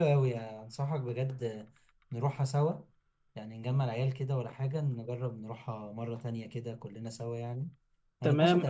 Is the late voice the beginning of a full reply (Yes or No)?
Yes